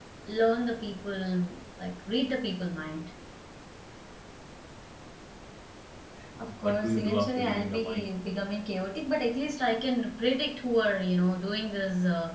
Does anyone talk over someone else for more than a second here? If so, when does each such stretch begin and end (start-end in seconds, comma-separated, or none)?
6.6-8.1